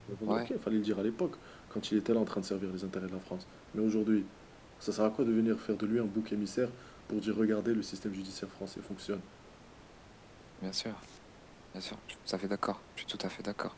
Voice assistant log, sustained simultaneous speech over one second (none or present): none